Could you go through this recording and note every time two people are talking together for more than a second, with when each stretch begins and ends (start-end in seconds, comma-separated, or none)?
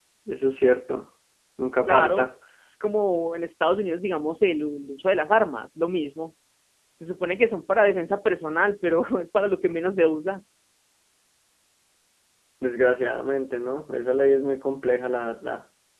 none